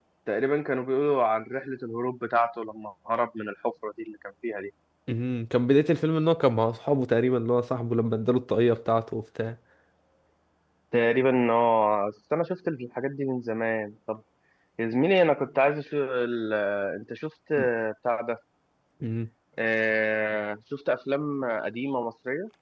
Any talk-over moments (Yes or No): No